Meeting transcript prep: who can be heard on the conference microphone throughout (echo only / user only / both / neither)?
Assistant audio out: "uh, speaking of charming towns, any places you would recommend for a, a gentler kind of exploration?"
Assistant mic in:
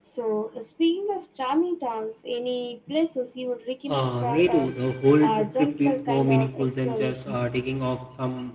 both